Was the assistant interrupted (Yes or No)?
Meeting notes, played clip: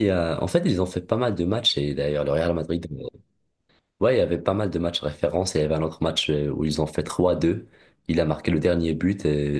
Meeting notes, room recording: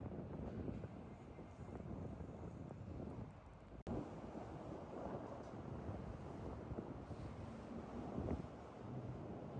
No